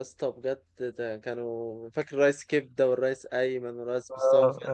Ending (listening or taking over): taking over